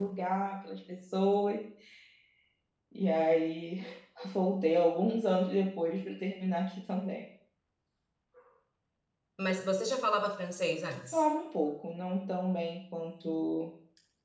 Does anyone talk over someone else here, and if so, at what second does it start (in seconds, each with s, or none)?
none